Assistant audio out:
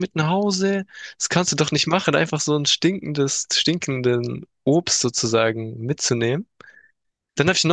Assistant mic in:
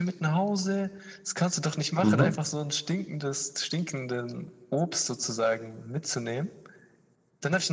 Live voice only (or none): Mhm.